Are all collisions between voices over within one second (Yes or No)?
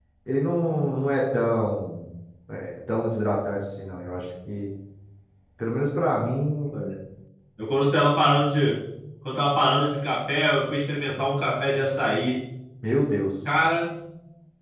Yes